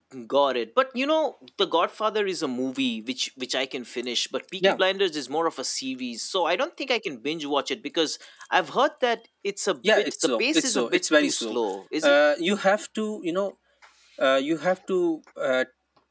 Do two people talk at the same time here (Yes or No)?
Yes